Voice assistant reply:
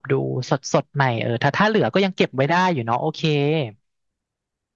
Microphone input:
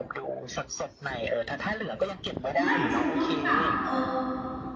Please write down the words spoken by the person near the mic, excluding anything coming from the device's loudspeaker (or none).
ไม่เชลต้องปรับเออ